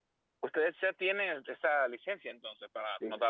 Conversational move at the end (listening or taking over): taking over